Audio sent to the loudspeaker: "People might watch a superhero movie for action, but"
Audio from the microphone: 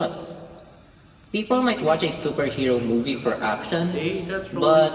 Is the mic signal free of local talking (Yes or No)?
No